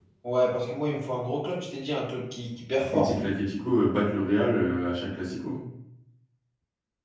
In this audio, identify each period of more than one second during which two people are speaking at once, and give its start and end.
none

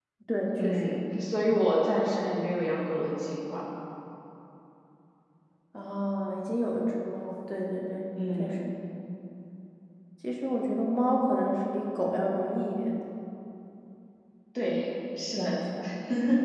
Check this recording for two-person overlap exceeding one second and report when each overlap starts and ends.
none

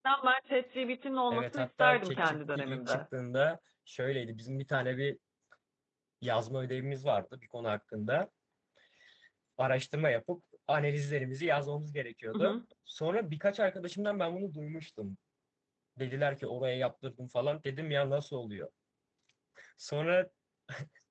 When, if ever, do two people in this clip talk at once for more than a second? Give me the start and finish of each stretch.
1.3-3.0

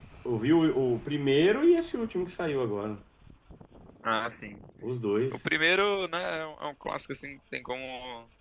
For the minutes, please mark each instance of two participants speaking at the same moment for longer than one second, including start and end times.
none

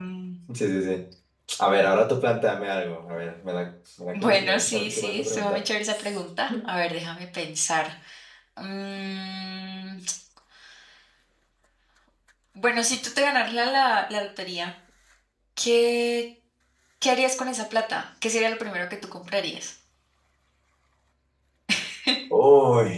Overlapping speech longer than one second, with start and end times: 4.1-5.7

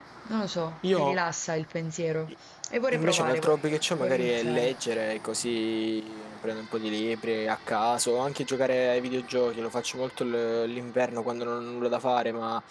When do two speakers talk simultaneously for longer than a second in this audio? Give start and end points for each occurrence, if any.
2.9-4.7

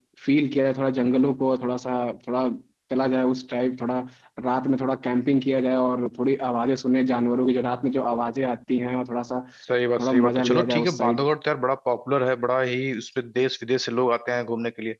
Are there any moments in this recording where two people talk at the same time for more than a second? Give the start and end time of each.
10.0-11.2

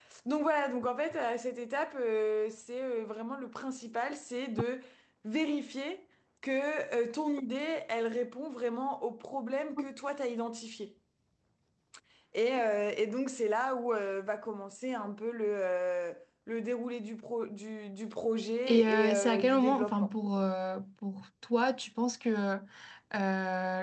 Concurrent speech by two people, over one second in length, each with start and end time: 18.6-20.1

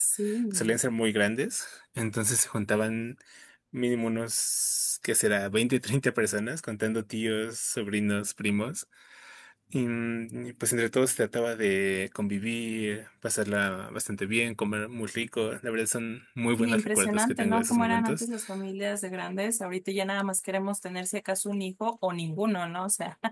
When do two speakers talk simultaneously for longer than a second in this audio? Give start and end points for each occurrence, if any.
16.5-18.2

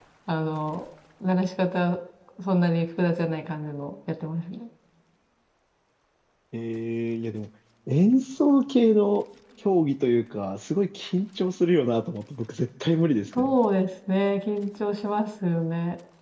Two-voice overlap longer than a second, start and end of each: none

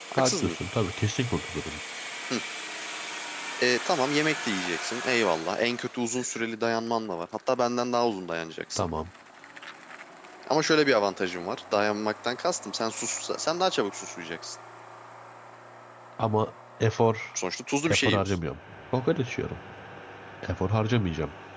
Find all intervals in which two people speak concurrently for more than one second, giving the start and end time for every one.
none

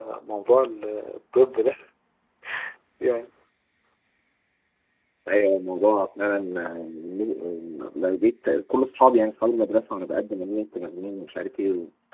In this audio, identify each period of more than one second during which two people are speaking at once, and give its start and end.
none

